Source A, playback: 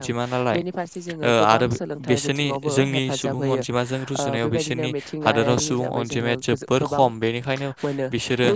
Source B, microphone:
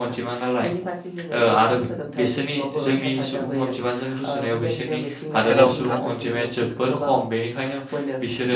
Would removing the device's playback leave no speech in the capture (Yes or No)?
No